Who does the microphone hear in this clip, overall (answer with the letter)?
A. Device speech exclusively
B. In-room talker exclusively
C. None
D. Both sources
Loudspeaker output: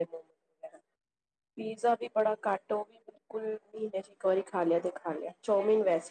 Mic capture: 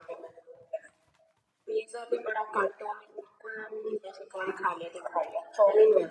A